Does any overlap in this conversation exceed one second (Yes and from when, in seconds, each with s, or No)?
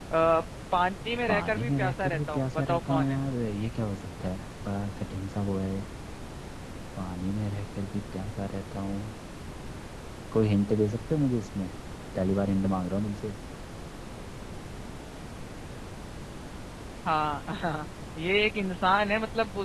Yes, from 1.3 s